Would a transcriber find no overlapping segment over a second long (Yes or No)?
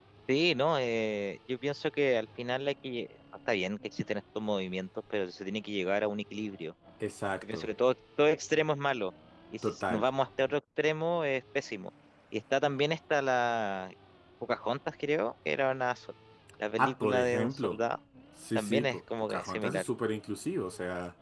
No